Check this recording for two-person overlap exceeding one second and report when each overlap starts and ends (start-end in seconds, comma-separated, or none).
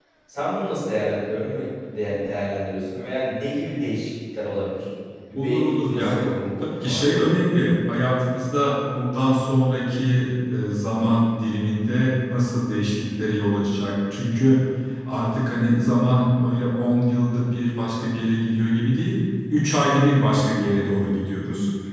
5.4-7.4